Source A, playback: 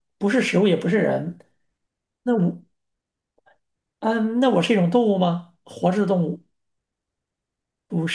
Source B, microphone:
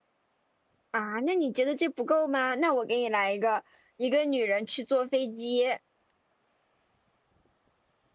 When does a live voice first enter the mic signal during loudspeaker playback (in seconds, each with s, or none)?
0.9 s